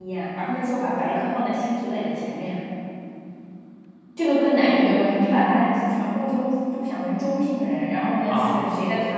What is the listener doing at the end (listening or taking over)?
listening